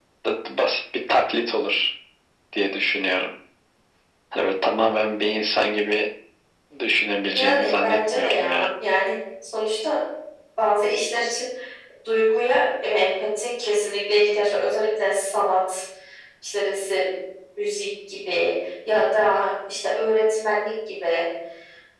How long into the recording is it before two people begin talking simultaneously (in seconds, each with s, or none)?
7.3 s